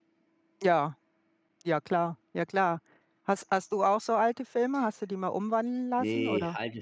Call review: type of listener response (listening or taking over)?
taking over